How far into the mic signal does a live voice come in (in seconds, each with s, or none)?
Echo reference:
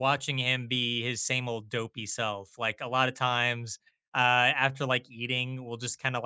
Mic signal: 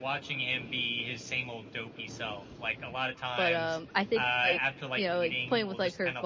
3.3 s